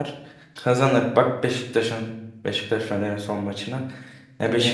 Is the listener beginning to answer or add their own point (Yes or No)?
No